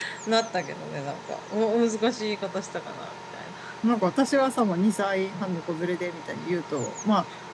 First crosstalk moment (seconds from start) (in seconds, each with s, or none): none